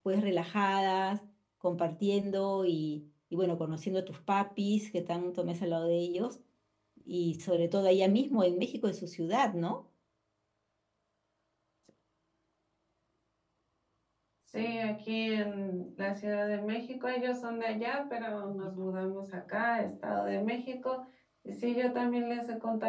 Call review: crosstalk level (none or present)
none